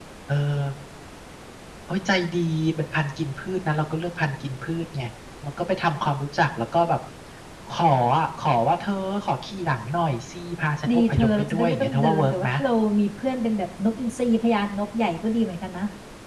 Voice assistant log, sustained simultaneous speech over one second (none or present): present